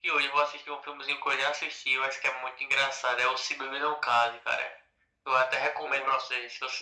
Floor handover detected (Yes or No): No